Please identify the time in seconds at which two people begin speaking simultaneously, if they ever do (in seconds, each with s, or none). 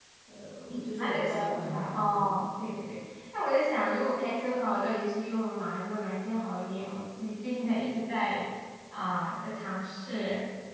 0.7 s